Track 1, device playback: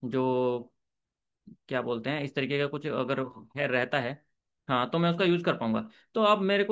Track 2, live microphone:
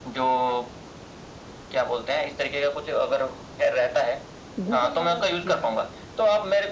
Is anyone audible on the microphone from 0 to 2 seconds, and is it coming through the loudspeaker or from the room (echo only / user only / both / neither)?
echo only